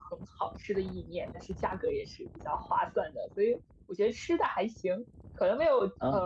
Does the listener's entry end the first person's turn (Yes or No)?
No